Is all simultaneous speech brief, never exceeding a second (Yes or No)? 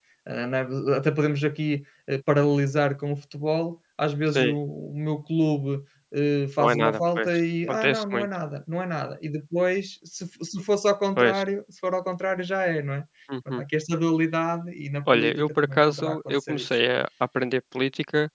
No